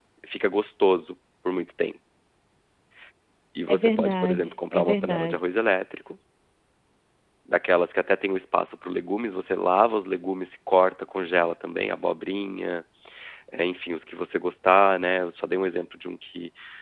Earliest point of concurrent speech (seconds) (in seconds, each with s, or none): 3.7 s